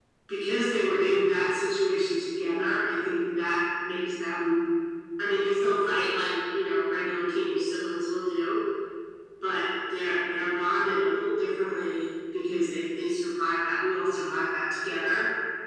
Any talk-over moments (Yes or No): No